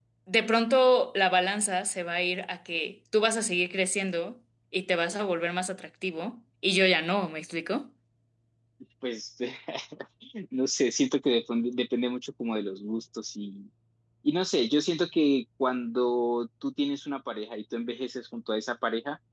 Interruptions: none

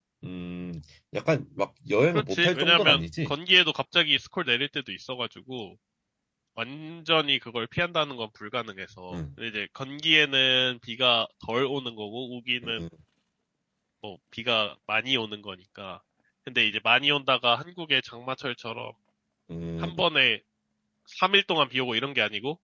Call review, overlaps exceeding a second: present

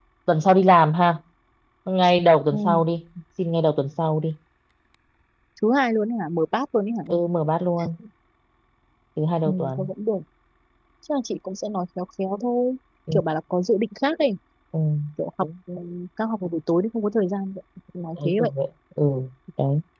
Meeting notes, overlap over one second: none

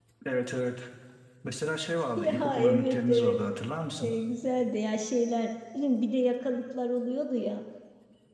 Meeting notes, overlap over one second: present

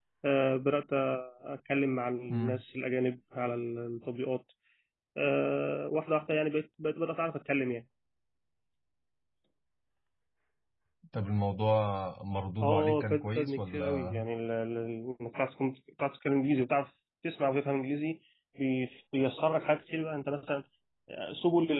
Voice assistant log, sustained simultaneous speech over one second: present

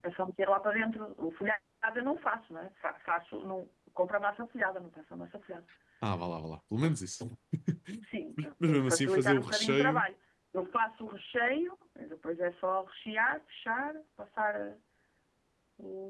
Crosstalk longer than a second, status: present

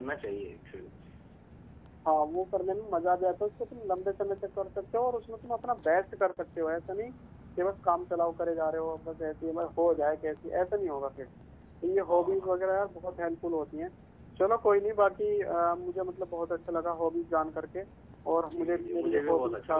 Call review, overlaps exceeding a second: present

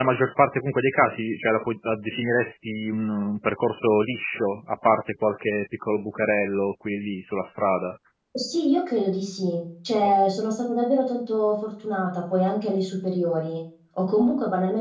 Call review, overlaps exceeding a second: none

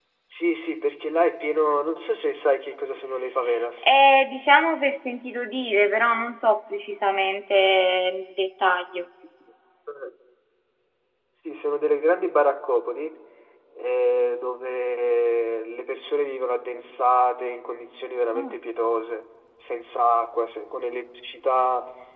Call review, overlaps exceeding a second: none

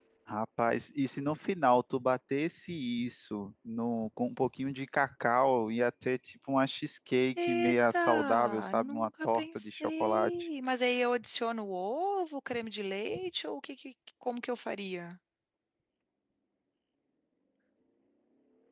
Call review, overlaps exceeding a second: present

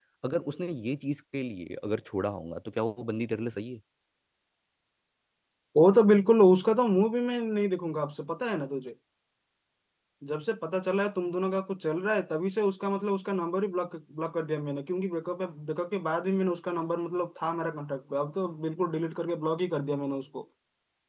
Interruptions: none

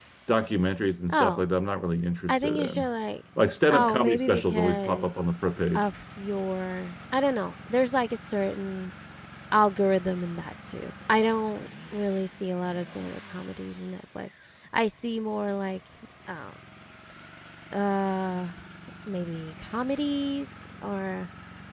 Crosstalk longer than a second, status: present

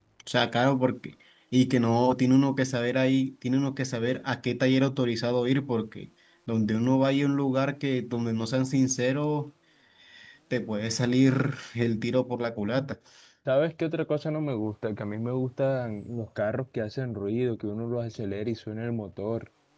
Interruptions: none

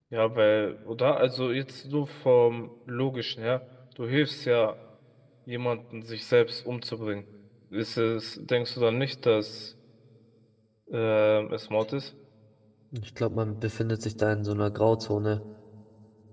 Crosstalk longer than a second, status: none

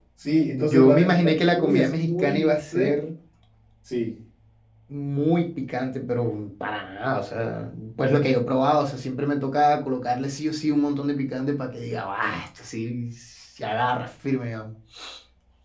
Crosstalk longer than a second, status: present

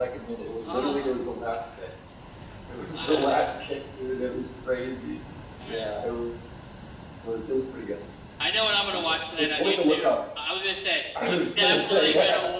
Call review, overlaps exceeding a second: present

